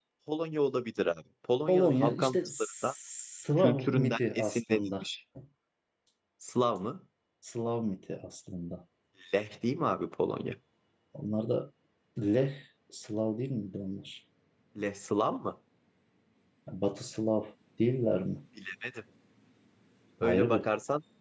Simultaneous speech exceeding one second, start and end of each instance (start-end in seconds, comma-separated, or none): 1.7-2.9, 3.6-5.0